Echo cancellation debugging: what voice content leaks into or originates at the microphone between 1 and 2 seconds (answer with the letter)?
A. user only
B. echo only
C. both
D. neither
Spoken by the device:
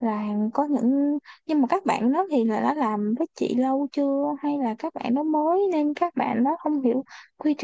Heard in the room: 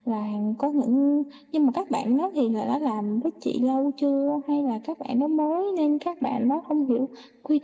B